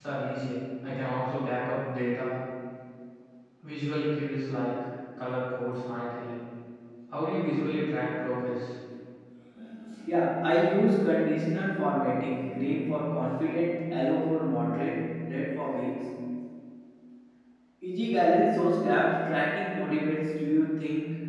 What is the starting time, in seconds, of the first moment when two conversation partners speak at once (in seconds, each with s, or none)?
none